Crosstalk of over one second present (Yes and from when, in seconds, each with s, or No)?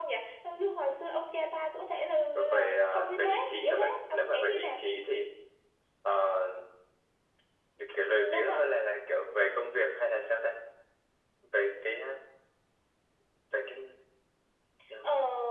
Yes, from 2.5 s